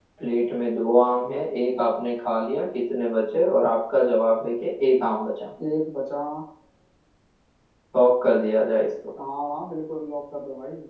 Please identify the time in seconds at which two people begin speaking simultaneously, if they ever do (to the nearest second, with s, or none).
none